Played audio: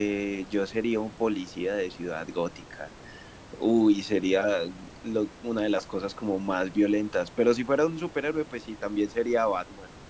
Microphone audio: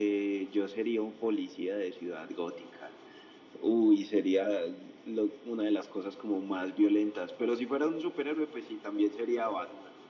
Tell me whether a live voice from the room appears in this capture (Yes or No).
No